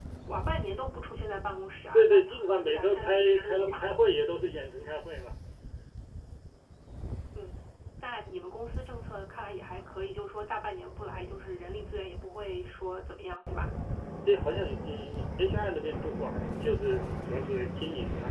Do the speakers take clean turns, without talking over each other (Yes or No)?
No